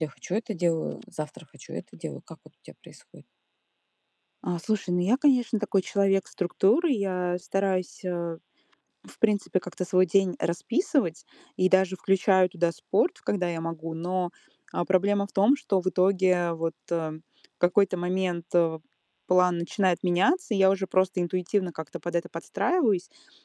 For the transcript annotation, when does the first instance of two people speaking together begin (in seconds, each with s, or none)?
none